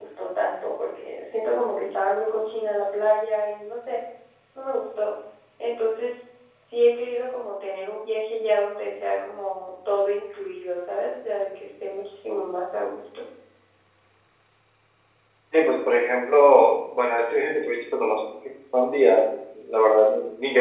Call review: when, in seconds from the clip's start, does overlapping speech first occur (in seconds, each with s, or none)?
none